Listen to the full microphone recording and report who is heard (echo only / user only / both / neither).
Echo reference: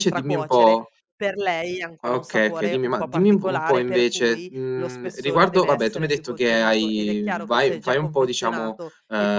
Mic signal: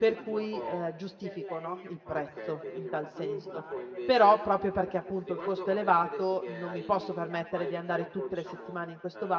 both